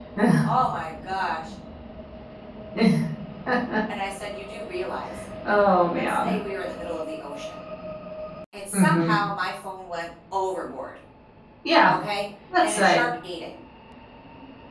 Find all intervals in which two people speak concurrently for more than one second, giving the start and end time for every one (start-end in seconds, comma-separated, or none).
none